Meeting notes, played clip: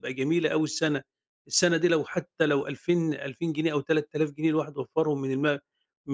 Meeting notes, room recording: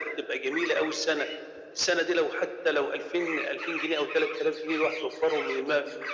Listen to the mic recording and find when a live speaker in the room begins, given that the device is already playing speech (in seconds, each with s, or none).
none